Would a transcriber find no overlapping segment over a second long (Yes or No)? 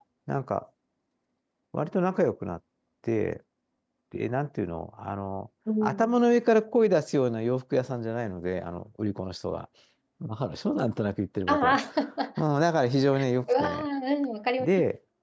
Yes